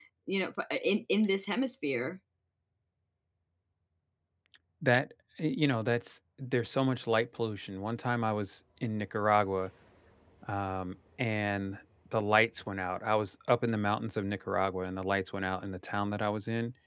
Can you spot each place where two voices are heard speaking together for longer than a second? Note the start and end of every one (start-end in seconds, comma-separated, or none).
none